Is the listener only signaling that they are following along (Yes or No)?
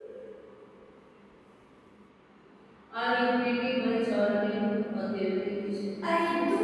No